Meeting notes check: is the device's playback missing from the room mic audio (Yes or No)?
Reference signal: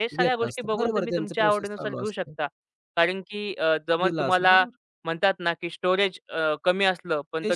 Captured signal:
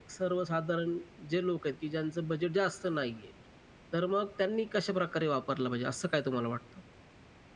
Yes